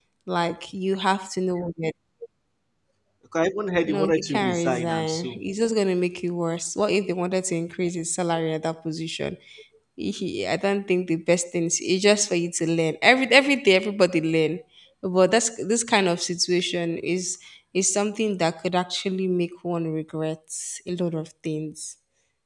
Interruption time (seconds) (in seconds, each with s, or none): 3.9 s